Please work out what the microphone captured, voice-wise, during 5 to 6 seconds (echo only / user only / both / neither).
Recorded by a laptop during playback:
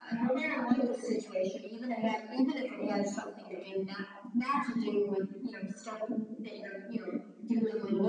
echo only